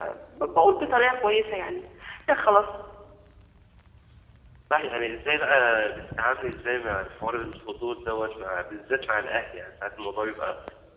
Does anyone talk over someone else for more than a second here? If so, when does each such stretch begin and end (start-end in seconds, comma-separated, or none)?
none